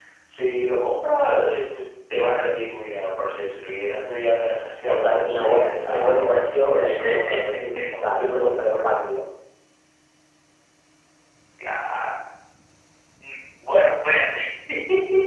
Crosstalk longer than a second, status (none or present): present